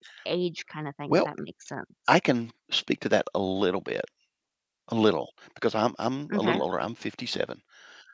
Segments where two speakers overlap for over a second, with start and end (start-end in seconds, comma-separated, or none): none